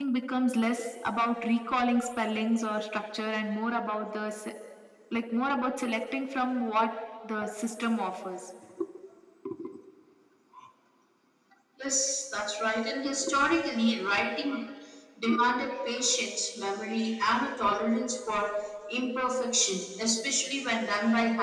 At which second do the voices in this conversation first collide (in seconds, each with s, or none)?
none